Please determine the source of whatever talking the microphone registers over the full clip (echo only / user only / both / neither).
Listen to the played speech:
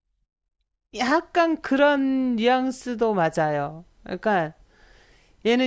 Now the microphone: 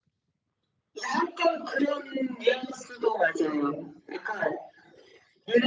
echo only